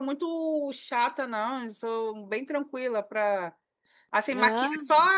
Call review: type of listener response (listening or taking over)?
listening